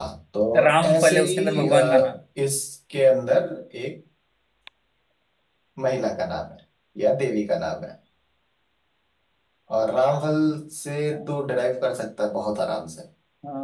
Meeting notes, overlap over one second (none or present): present